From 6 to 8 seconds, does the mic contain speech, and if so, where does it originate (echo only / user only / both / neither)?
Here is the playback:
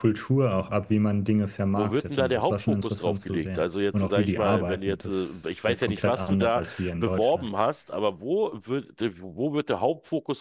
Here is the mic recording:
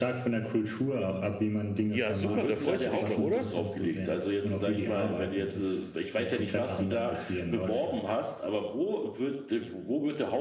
echo only